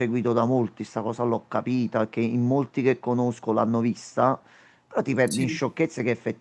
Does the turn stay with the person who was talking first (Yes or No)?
Yes